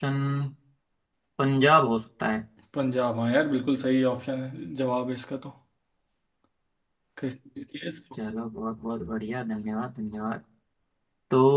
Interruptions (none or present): none